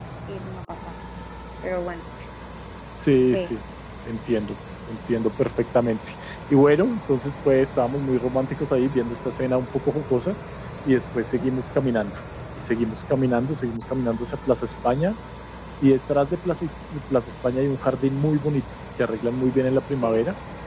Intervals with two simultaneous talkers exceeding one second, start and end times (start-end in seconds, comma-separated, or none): none